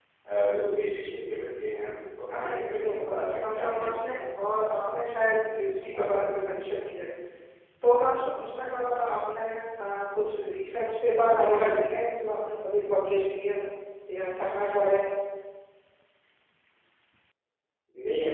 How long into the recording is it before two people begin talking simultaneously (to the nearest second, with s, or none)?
2 s